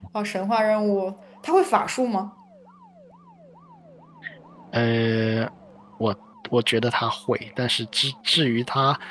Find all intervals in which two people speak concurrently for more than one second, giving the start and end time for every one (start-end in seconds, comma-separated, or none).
none